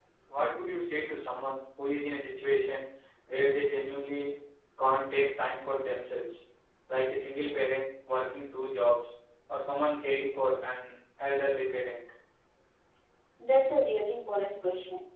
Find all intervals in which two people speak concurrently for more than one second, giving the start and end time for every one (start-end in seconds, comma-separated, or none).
none